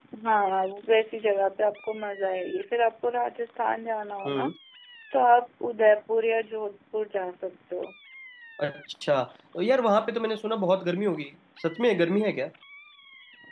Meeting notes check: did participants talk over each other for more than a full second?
No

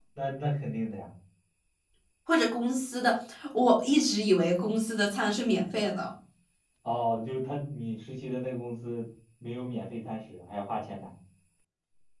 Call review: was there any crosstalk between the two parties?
No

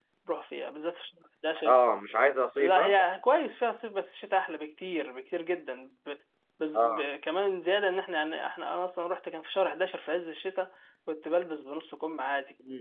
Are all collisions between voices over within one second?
Yes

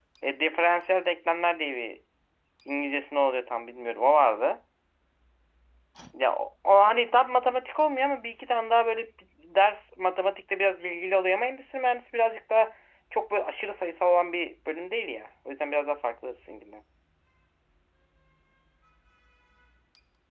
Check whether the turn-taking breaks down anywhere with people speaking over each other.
No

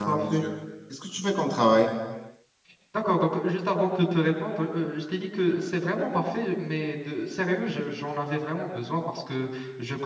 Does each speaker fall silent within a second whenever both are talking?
Yes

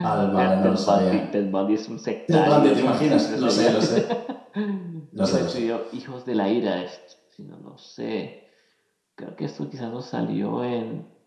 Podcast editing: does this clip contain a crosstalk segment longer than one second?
Yes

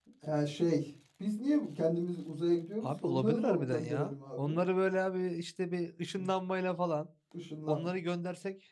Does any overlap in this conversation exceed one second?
Yes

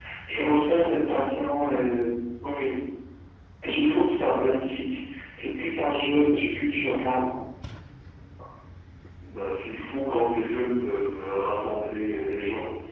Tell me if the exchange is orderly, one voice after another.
Yes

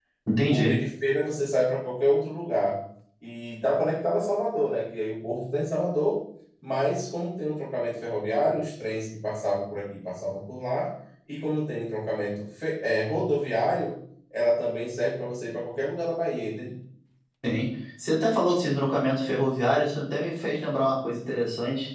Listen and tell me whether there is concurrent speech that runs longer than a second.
No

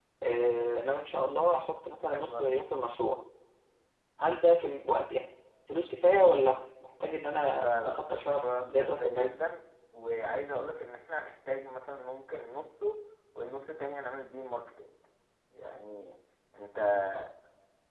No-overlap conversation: No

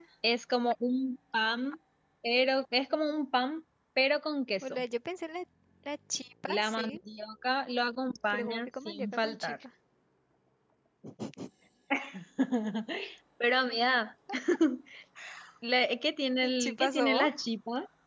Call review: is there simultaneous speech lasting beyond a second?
Yes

